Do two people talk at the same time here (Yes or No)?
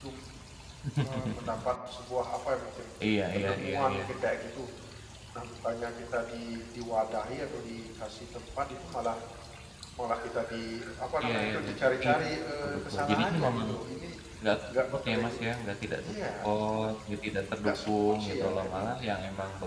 Yes